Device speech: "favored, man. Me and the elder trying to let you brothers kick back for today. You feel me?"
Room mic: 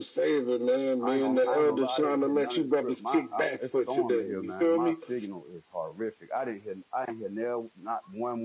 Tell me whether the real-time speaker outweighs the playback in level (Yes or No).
No